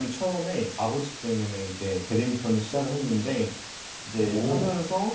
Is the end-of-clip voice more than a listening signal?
No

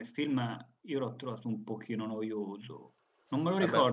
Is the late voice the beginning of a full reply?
No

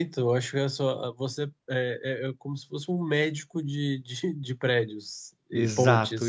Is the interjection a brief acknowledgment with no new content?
No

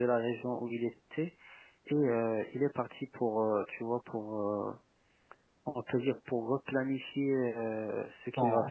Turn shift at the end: Yes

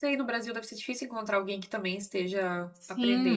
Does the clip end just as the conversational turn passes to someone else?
Yes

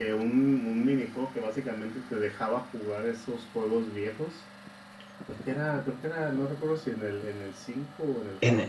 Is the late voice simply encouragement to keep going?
No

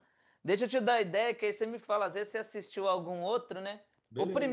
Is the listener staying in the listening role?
Yes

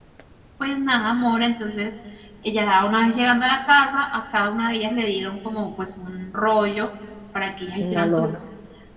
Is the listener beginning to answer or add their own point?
No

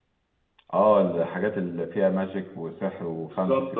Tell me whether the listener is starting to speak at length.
Yes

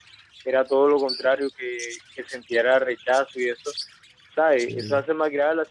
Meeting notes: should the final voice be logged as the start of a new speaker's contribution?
No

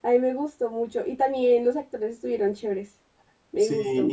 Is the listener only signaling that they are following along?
No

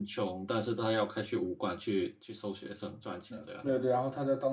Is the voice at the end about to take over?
Yes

